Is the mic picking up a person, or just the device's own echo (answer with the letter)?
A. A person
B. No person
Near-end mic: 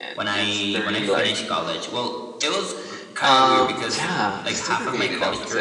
A